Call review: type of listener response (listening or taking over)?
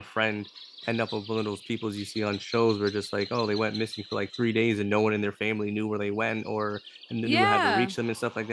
listening